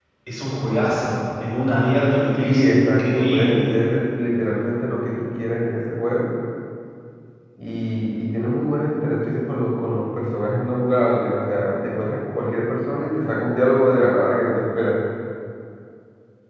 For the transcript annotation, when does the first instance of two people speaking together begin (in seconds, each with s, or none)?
2.4 s